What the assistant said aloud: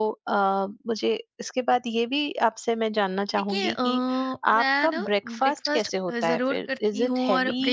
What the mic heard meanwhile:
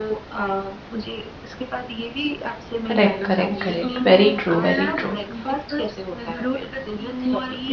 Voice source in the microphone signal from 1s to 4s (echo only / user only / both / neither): both